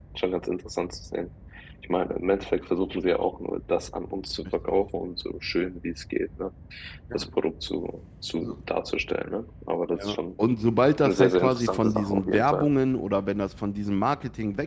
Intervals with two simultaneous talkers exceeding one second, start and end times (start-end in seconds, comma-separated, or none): 11.0-12.7